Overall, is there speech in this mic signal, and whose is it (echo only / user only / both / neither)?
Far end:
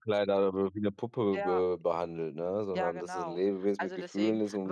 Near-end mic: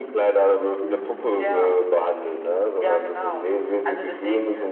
echo only